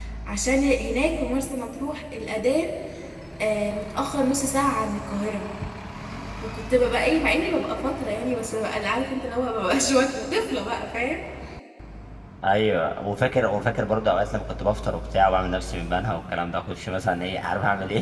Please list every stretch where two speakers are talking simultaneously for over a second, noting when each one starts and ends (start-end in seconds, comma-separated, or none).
none